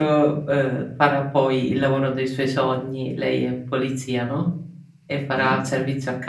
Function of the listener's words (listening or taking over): listening